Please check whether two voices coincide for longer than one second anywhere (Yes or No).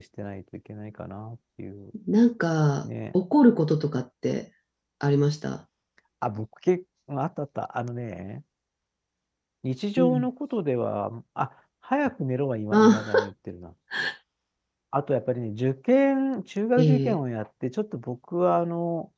No